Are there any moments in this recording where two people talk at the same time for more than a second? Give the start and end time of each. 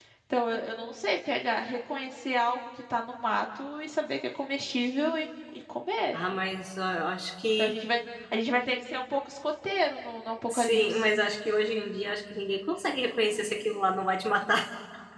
none

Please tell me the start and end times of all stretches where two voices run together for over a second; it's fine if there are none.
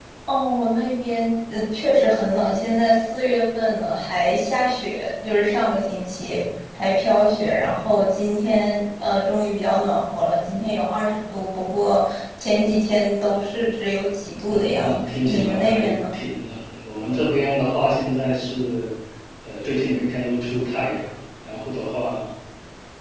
14.5-16.0

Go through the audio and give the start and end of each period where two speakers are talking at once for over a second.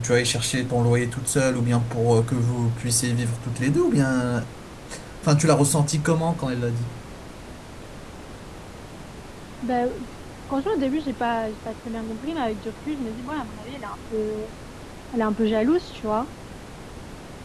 none

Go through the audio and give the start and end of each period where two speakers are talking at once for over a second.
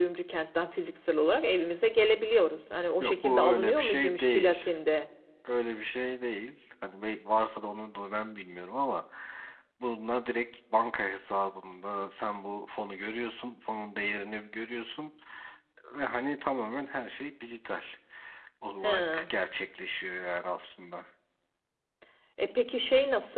3.0-4.6

